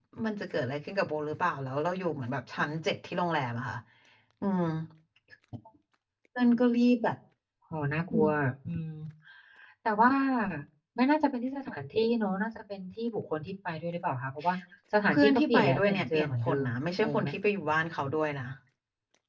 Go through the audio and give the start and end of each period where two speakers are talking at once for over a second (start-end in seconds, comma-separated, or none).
15.1-16.6